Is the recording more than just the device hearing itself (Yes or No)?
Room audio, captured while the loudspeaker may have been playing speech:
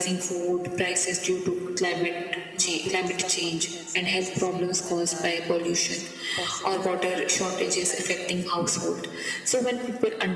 Yes